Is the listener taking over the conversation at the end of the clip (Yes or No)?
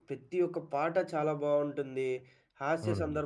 No